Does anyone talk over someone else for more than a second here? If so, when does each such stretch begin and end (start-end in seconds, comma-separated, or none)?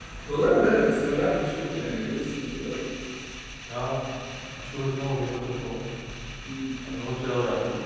none